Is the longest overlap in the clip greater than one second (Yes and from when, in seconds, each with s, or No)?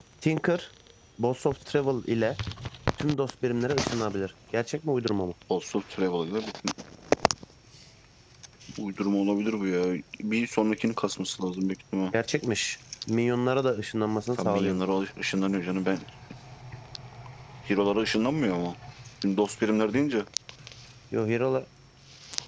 No